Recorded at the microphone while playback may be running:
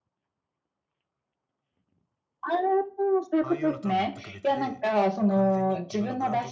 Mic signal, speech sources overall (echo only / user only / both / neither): both